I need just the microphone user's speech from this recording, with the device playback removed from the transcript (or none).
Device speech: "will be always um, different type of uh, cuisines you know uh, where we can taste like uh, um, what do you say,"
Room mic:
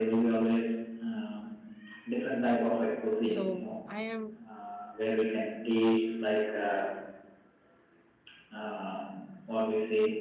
So I am